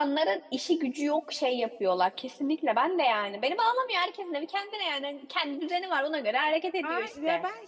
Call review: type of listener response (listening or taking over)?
taking over